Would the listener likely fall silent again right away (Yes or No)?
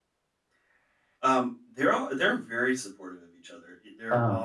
Yes